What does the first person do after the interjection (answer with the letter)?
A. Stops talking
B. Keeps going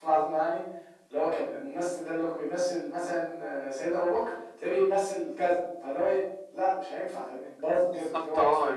A